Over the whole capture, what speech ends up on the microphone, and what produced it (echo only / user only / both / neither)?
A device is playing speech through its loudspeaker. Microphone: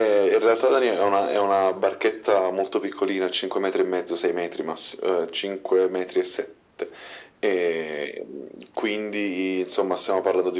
echo only